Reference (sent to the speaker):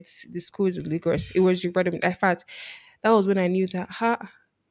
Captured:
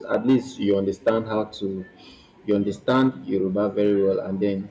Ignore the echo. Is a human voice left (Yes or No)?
Yes